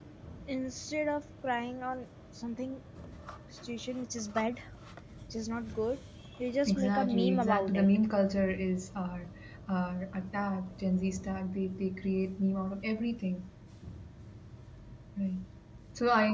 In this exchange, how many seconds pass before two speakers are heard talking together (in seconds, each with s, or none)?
6.7 s